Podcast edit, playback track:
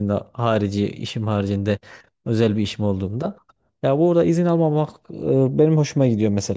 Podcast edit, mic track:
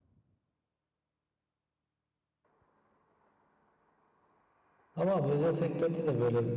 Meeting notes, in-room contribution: present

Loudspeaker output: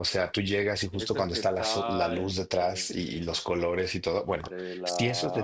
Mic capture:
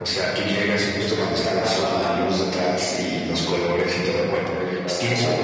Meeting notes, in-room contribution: none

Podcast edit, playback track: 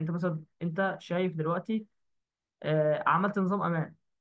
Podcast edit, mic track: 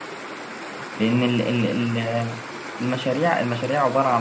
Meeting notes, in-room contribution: present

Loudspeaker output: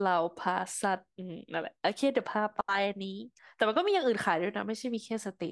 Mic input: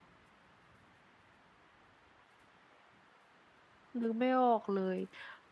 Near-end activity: present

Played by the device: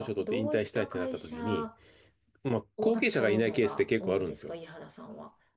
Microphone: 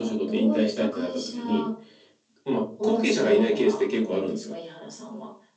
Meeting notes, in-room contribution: none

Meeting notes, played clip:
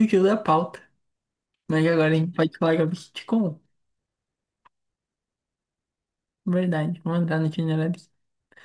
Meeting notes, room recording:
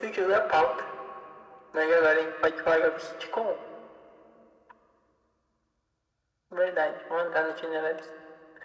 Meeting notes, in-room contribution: none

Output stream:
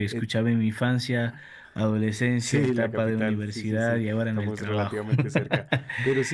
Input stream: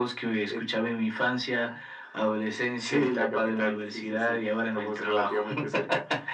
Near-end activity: none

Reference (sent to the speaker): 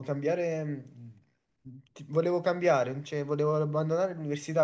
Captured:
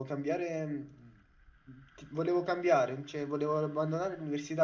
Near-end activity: none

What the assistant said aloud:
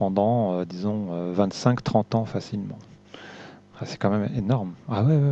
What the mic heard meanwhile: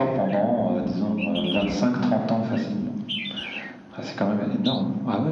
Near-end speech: none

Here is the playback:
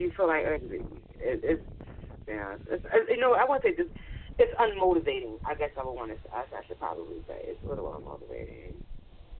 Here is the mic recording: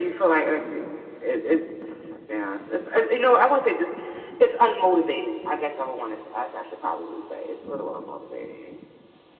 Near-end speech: none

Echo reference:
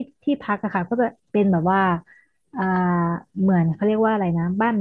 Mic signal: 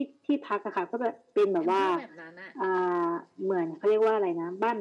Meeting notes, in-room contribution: present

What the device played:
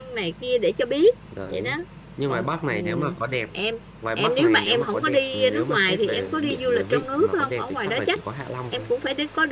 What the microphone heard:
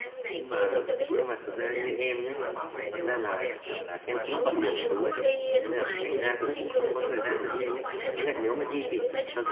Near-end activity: present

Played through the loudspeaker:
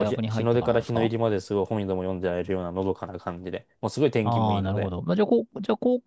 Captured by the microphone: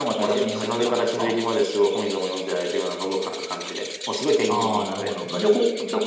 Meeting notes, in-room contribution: none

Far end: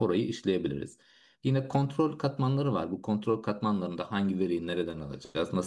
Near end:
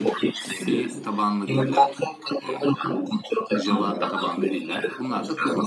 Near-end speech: present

